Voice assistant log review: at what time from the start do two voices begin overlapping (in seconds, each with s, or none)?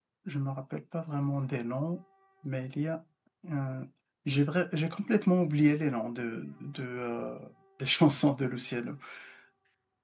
none